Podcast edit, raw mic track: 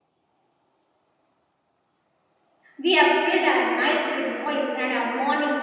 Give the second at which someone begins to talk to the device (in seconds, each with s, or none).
2.8 s